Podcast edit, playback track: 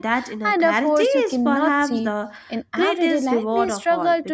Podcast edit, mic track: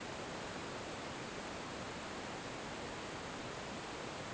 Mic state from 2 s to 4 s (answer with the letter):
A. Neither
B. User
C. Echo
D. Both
A